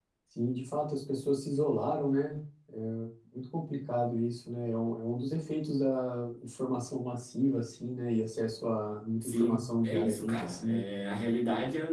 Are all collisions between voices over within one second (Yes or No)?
No